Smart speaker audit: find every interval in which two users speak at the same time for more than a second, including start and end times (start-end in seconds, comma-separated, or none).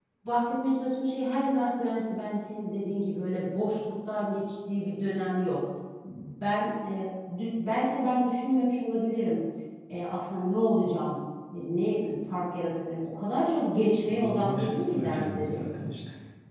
14.0-15.6